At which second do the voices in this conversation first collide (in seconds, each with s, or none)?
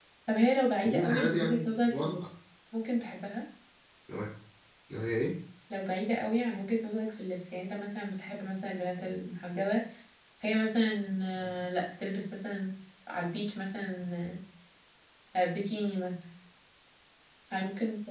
0.8 s